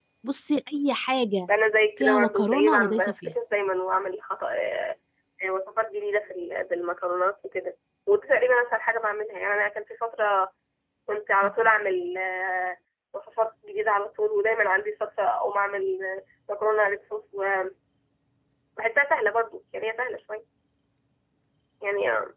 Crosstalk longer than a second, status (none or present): present